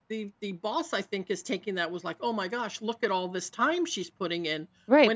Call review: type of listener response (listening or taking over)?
taking over